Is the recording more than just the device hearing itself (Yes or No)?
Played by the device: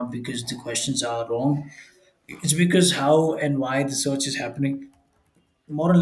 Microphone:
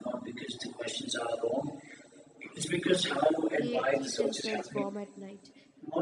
Yes